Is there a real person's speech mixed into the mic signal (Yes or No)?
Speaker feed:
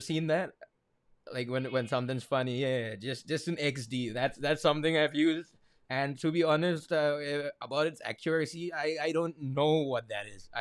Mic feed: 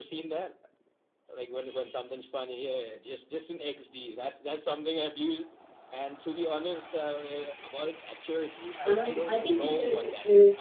Yes